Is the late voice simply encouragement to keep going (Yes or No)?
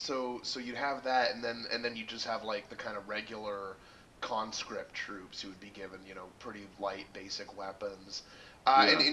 Yes